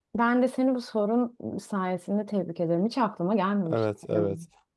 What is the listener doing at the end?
taking over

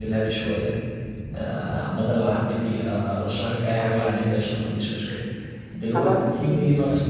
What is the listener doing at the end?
listening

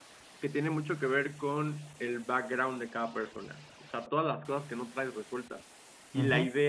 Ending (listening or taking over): listening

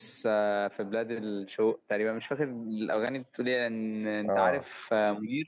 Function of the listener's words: listening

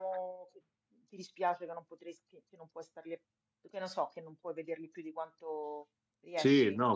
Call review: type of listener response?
taking over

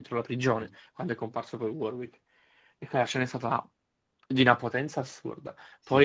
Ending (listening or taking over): listening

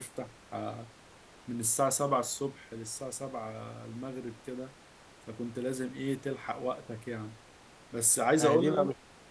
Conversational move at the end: taking over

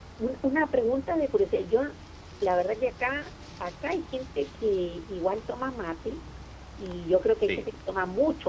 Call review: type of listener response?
listening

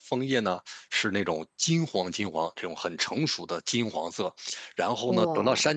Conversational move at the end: listening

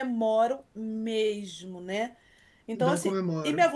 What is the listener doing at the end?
listening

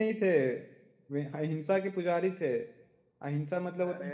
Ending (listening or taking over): listening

